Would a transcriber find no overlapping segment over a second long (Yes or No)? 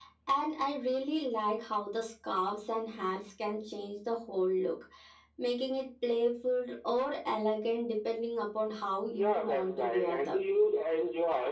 No